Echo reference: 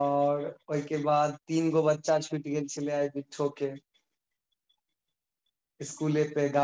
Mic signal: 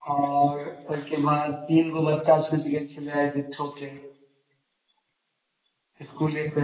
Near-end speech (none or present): none